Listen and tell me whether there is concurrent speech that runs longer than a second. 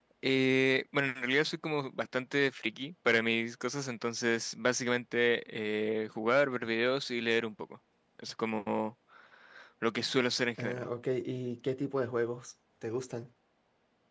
No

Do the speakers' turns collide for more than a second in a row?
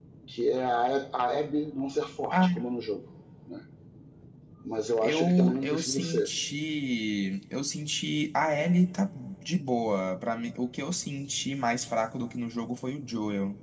Yes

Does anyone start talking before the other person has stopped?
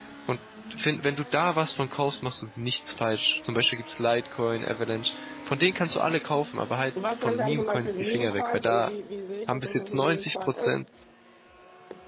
Yes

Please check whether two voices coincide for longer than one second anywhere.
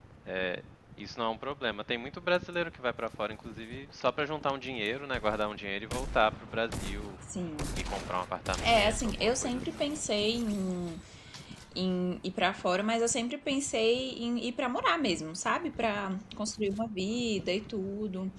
Yes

